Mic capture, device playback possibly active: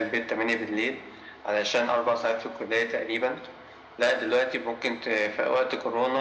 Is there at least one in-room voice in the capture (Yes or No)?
No